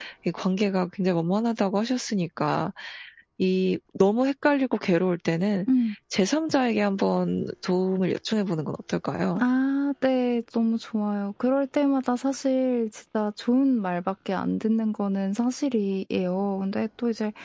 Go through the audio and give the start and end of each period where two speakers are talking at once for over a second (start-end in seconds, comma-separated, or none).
none